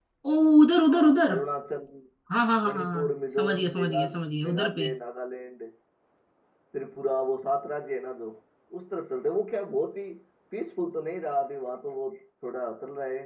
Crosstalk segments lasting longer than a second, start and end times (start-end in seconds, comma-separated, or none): 2.6-4.9